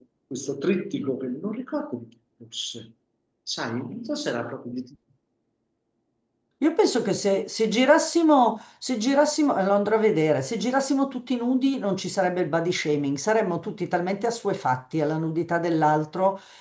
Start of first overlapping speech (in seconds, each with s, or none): none